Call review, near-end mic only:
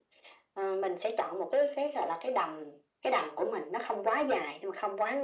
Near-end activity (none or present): none